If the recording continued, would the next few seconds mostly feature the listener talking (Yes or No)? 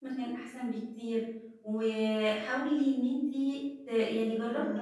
Yes